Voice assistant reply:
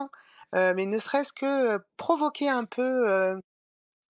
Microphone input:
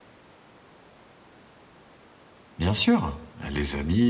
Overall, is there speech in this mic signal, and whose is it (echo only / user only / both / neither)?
user only